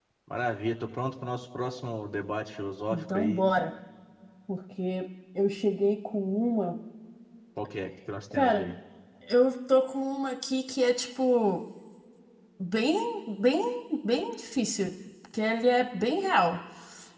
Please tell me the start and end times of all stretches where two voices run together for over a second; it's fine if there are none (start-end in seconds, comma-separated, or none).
none